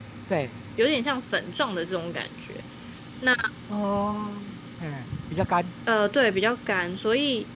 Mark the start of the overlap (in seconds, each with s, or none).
none